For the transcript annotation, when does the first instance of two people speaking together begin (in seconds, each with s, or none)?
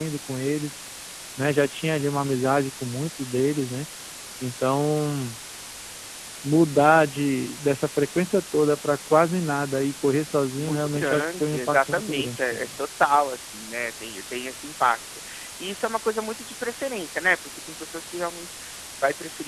10.6 s